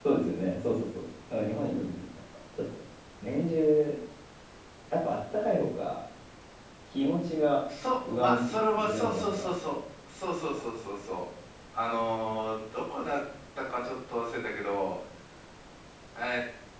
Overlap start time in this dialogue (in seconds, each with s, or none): 8.0 s